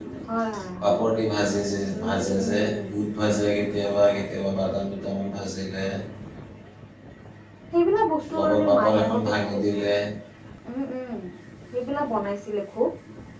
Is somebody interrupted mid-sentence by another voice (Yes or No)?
Yes